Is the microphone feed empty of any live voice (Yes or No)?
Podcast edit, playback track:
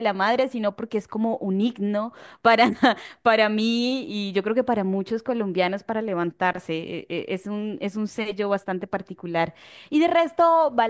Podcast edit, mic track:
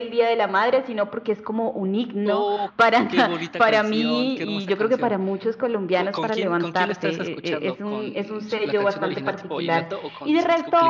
No